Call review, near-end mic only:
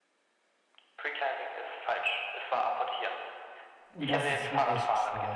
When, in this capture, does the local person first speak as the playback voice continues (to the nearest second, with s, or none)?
4 s